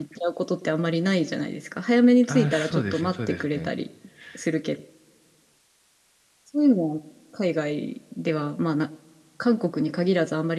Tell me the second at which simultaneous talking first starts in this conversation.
2 s

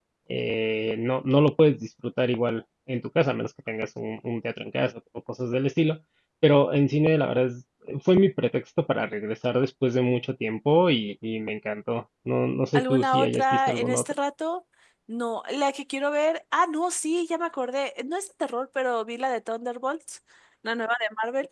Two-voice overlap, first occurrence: 13 s

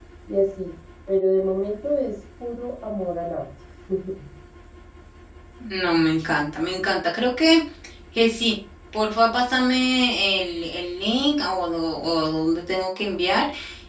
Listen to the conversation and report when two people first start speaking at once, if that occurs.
none

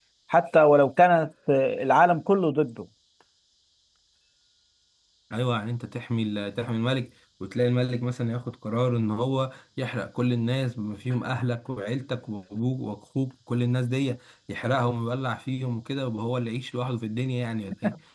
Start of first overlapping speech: none

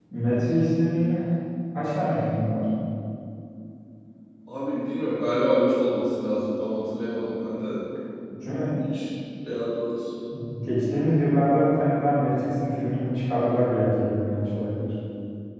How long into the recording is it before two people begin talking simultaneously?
none

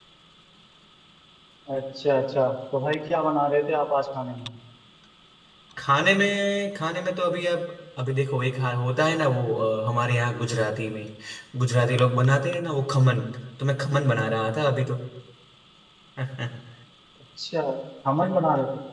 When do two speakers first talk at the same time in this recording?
none

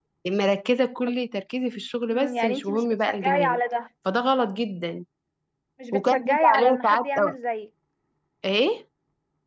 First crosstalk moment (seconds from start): 2 s

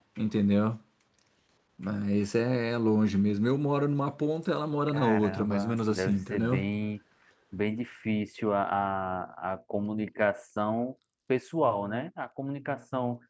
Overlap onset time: 5 s

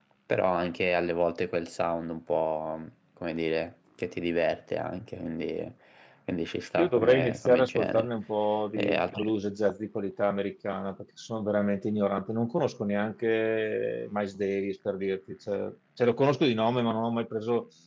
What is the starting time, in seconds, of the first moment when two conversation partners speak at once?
7 s

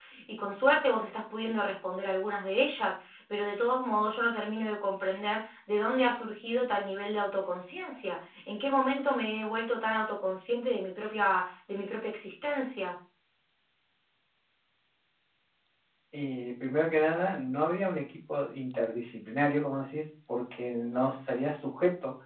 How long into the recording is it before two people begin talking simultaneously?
none

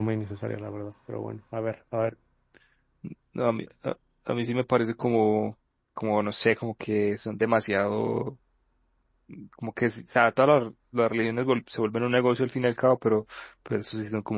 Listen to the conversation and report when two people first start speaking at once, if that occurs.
none

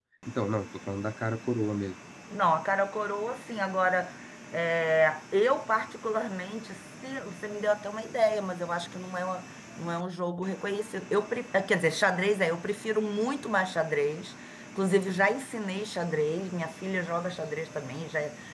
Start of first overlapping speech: none

